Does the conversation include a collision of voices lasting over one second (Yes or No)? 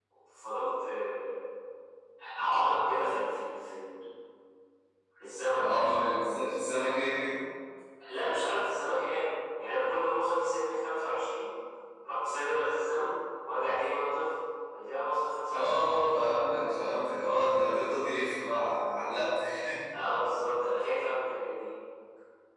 No